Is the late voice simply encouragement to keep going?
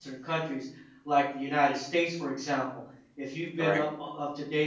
Yes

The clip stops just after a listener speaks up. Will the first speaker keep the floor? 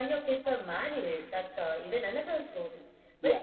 Yes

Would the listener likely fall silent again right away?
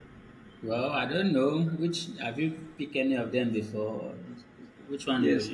No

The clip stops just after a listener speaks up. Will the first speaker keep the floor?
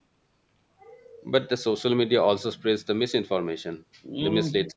No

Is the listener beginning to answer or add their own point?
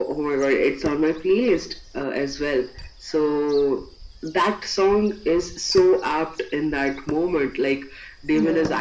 No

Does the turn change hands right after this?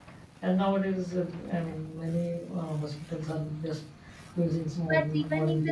Yes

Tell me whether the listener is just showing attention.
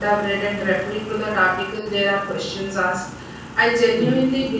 Yes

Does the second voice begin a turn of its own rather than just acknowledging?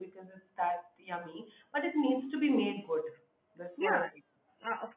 Yes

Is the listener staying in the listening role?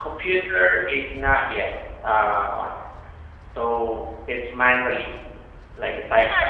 No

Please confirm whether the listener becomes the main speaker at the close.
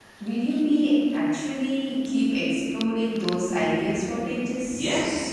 Yes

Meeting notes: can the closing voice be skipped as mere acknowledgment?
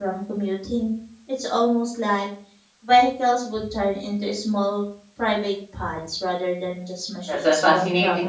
No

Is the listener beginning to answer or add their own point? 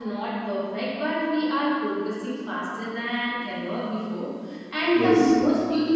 No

